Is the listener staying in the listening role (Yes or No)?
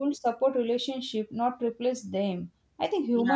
Yes